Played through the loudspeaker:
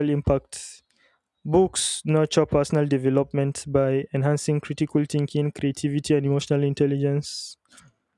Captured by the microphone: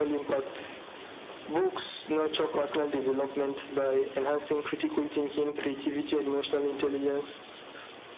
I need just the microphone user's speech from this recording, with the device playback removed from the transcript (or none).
none